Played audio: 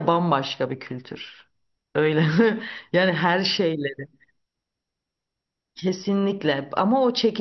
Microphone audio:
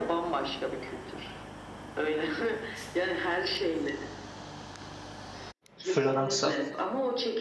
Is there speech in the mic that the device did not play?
Yes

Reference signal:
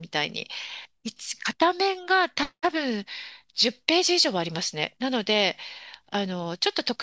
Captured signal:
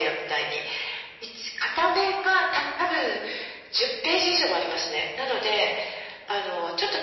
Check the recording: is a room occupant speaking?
No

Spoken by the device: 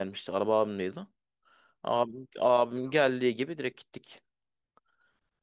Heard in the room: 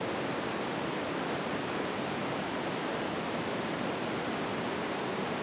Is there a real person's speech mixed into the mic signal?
No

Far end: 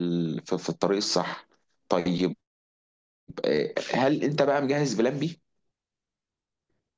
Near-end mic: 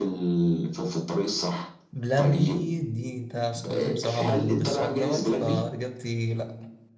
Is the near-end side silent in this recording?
No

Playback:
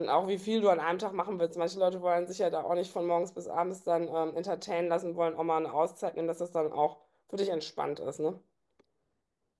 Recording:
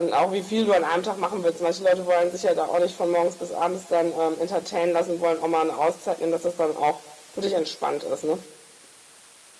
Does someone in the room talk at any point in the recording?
No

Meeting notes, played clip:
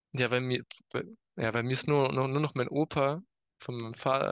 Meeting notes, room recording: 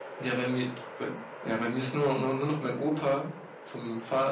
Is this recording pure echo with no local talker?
Yes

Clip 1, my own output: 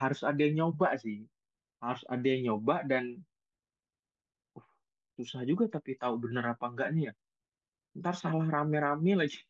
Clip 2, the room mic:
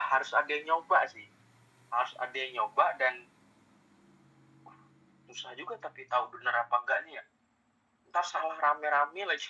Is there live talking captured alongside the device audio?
No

